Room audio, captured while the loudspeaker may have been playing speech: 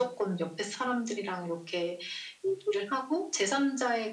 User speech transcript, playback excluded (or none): none